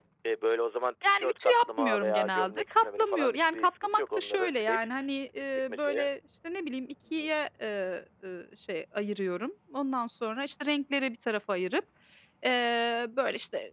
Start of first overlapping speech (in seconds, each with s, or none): 1.0 s